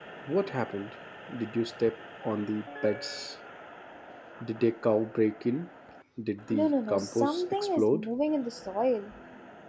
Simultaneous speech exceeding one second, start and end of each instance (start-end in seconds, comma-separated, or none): 6.5-8.1